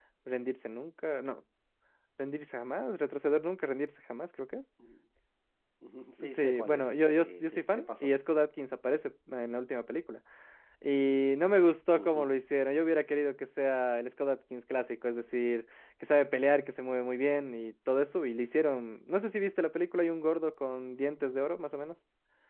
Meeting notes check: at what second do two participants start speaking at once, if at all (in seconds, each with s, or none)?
6.3 s